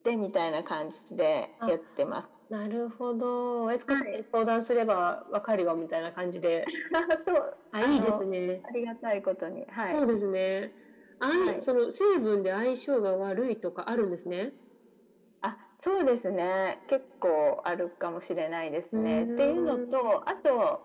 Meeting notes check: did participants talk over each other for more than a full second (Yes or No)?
Yes